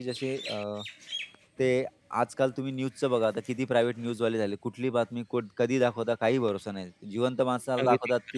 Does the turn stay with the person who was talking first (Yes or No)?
Yes